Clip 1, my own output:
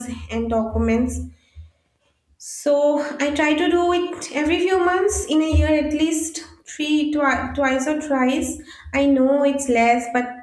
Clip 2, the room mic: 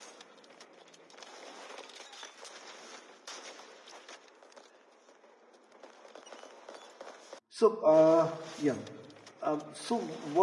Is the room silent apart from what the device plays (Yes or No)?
No